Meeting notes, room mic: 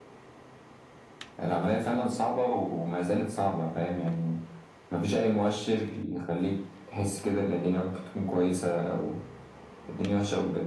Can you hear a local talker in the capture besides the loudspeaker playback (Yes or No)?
No